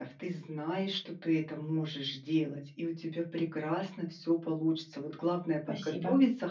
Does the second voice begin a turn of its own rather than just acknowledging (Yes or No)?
No